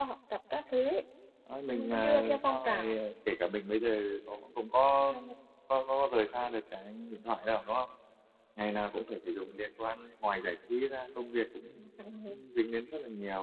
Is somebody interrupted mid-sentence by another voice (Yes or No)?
Yes